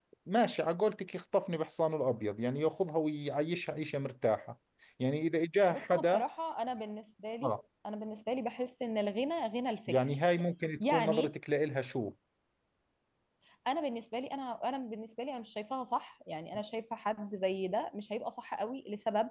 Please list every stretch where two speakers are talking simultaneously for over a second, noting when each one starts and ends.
none

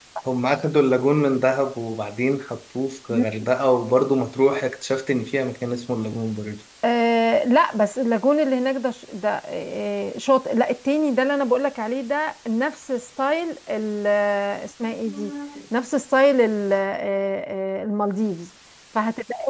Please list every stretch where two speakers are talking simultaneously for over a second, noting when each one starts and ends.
none

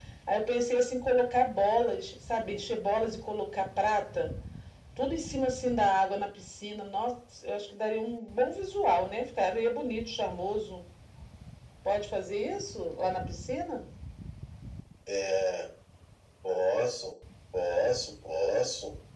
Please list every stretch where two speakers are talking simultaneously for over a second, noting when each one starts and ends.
none

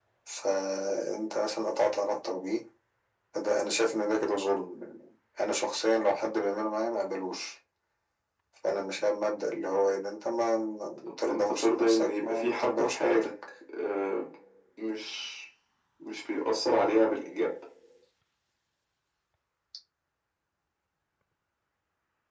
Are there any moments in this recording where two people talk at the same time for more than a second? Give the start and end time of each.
11.2-13.3

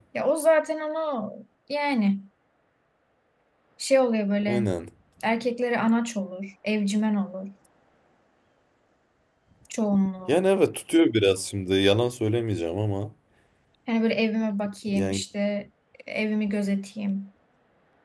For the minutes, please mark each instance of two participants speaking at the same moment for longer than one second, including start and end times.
none

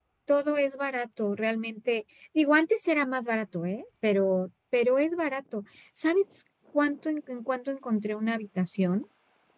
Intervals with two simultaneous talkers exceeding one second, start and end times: none

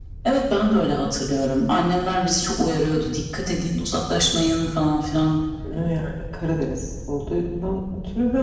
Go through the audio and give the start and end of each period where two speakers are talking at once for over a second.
none

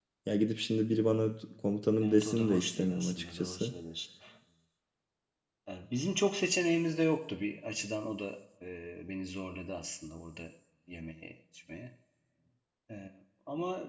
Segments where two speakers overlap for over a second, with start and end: 2.0-3.7

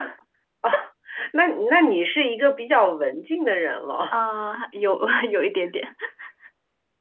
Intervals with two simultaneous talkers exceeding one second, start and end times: none

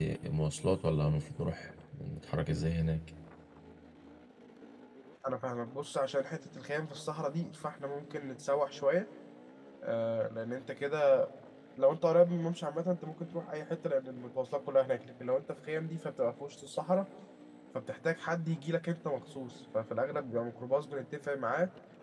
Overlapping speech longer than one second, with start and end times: none

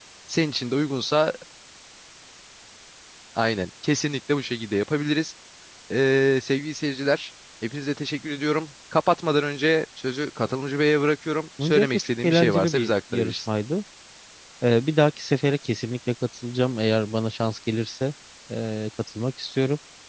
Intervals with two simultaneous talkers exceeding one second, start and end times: 11.6-13.4

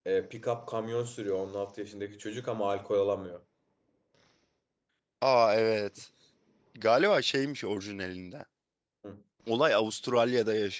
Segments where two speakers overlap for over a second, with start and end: none

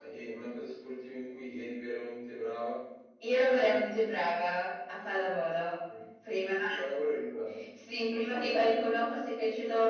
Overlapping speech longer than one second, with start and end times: none

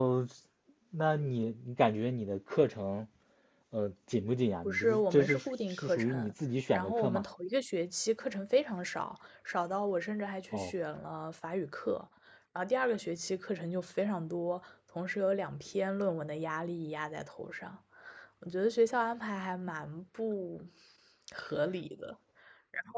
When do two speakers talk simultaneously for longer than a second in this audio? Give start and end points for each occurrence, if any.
4.6-6.3

